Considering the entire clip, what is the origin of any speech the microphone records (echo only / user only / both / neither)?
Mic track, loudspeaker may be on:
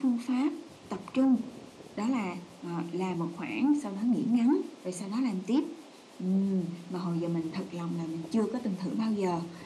echo only